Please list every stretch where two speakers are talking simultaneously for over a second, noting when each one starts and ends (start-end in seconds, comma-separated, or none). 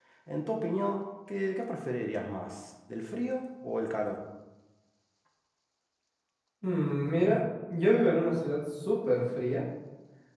none